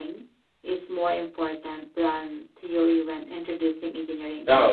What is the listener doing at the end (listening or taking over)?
taking over